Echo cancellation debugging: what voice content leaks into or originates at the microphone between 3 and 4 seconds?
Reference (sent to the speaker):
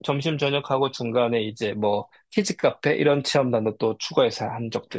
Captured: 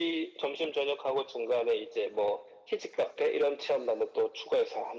echo only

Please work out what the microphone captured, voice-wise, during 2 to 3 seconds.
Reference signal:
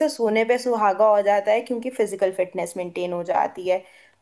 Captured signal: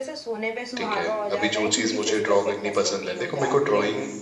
both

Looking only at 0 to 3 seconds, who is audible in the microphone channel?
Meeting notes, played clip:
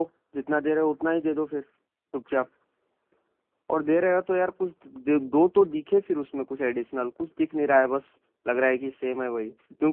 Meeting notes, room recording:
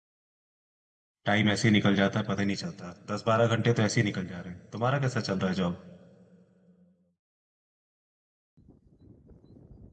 user only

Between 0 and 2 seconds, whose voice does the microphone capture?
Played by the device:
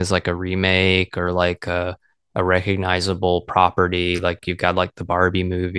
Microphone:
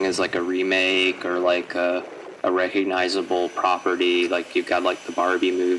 echo only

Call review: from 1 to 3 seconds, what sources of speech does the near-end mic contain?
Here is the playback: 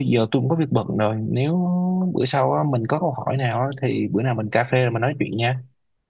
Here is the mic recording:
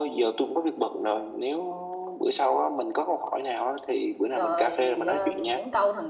echo only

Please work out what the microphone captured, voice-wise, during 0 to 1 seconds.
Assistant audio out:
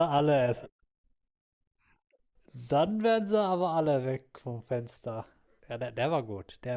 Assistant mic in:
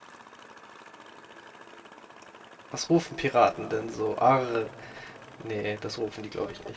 neither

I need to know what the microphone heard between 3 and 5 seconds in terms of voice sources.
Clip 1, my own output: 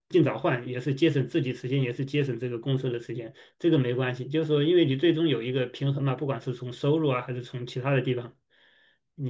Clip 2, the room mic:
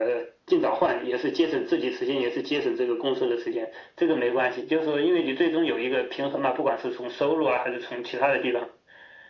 echo only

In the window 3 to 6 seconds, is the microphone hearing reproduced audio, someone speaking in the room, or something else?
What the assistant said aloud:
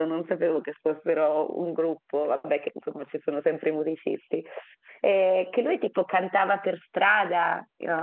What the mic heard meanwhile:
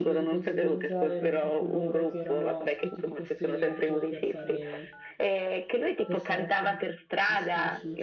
both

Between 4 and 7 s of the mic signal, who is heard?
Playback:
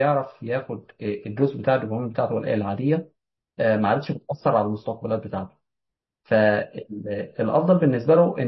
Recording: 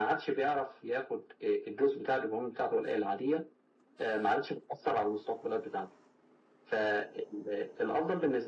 echo only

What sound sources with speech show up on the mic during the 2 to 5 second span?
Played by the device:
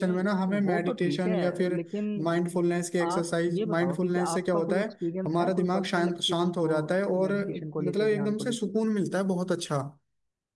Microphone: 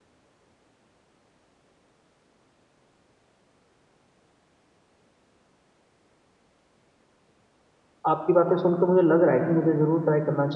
neither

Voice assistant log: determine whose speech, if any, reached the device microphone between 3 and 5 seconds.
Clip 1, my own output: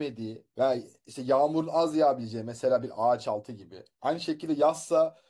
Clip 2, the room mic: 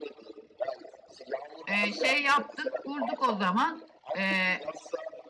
both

